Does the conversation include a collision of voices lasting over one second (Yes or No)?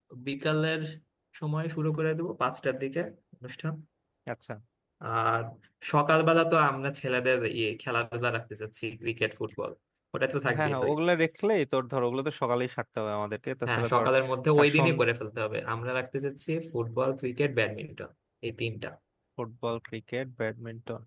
No